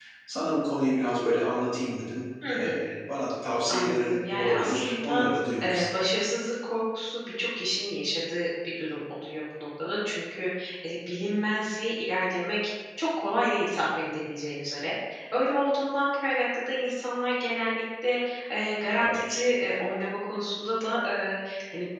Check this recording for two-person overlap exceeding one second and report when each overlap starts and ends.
3.7-5.2

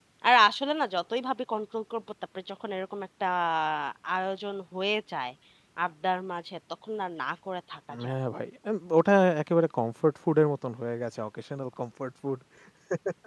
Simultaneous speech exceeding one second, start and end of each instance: none

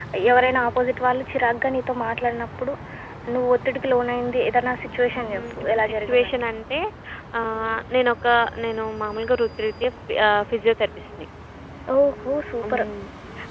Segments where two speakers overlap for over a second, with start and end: 5.2-6.4

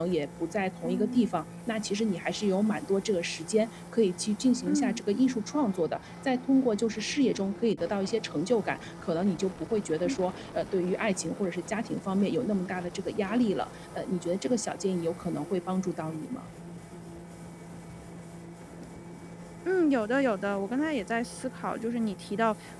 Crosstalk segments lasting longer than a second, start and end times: none

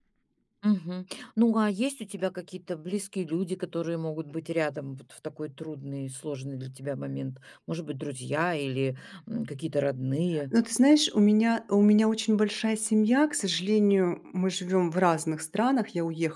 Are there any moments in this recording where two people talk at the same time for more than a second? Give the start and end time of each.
none

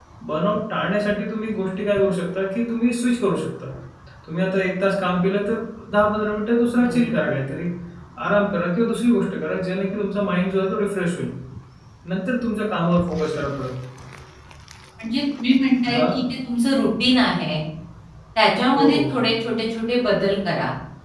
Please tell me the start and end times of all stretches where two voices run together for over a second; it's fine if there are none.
none

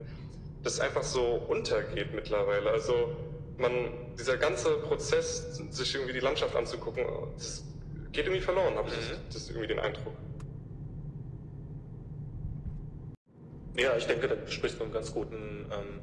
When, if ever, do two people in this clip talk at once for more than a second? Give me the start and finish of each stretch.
none

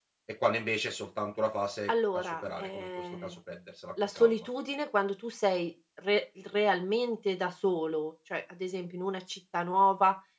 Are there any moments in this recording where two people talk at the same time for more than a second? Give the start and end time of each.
1.9-3.4

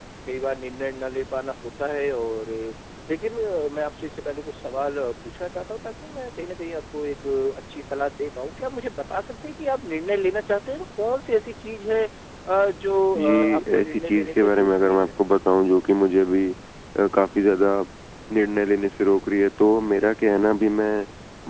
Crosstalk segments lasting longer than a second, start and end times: 13.2-15.1

